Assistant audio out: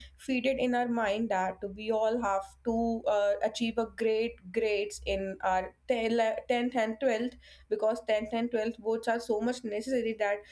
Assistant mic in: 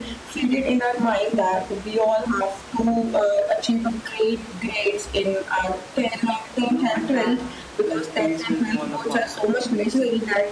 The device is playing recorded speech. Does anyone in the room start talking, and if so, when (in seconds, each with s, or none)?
6.6 s